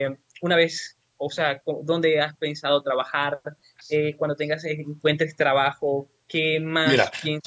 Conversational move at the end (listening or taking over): listening